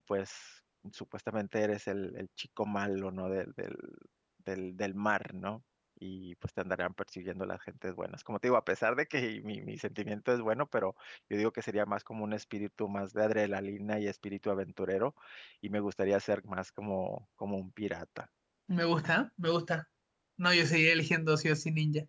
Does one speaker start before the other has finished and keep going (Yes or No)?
No